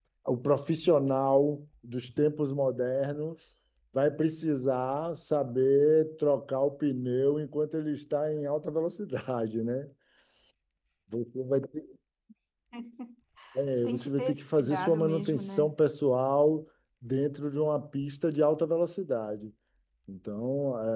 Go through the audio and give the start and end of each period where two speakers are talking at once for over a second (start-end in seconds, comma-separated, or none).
13.8-15.7